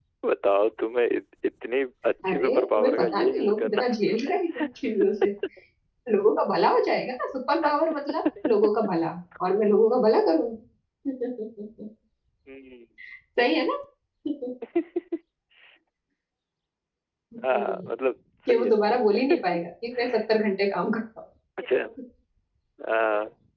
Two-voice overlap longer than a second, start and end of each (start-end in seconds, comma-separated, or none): 2.2-4.6